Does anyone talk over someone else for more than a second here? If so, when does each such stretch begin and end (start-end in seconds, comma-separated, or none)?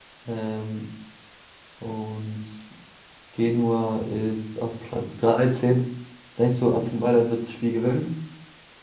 none